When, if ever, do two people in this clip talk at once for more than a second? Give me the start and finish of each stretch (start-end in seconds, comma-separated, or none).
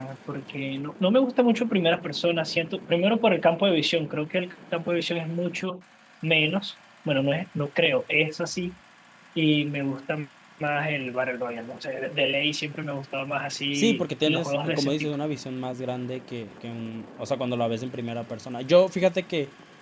13.8-15.1